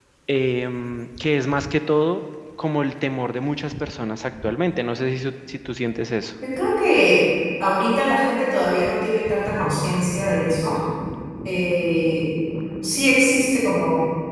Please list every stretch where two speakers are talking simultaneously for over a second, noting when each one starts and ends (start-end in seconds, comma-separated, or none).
none